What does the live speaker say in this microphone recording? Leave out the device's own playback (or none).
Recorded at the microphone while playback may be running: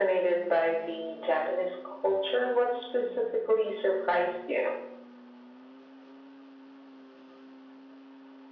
none